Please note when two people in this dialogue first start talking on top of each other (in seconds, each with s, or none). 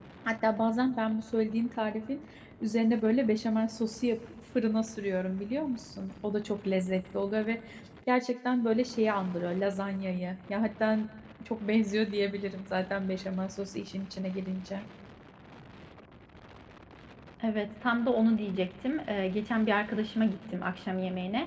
none